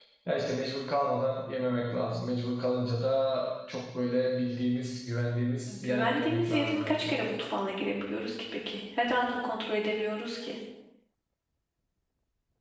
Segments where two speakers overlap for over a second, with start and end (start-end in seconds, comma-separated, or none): 5.7-7.2